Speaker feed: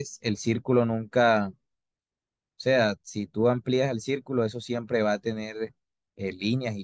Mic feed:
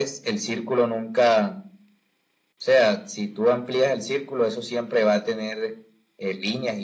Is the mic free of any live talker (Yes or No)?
Yes